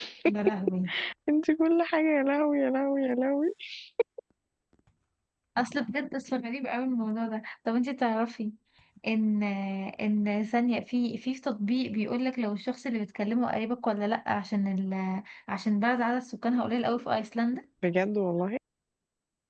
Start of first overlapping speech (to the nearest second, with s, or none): none